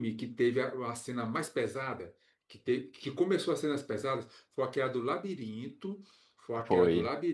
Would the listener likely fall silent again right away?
Yes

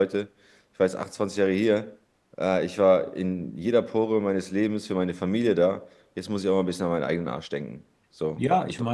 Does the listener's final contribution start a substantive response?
Yes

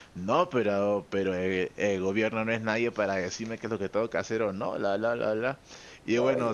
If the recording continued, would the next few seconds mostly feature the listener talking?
No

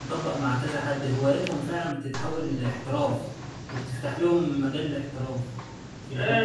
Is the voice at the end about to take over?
Yes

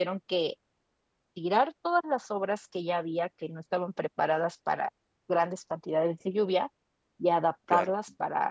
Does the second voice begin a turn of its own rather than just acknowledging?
No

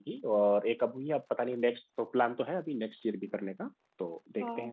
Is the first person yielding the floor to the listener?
Yes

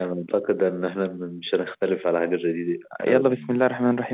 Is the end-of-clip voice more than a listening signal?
Yes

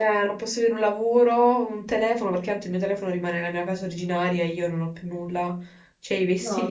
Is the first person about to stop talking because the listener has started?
Yes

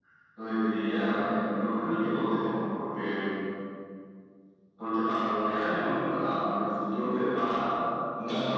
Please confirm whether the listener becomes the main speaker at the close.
No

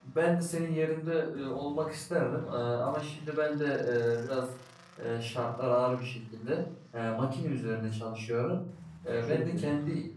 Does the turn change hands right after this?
No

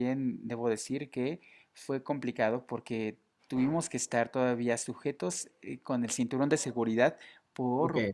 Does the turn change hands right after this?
No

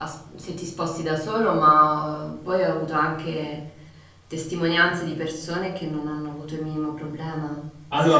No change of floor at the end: No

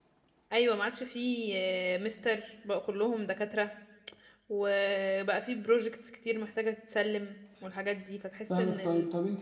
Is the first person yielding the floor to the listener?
Yes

